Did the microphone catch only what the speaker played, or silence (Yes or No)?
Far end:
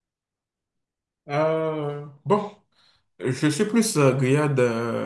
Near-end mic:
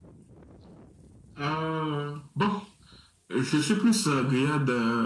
Yes